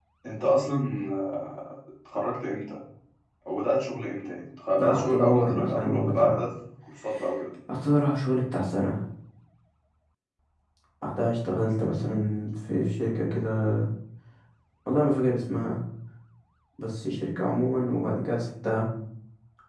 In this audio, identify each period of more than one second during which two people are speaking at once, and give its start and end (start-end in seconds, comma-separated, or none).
4.8-6.5